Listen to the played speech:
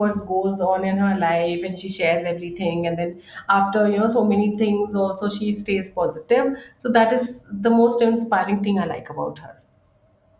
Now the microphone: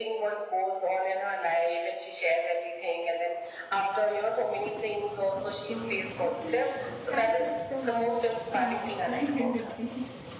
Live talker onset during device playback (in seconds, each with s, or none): 5.6 s